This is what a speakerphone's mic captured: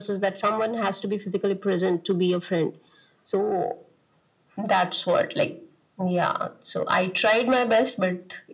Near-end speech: none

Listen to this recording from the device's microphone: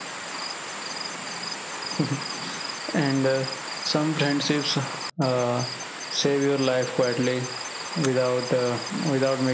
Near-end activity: none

